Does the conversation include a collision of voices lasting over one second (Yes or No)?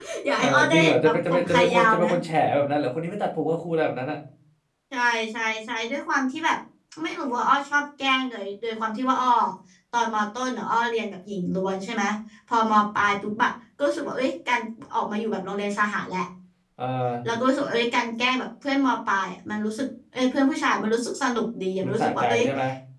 Yes